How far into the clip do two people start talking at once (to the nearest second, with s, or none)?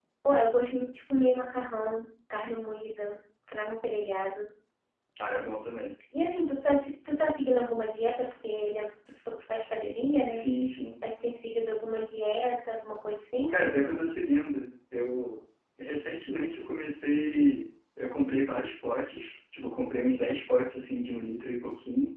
none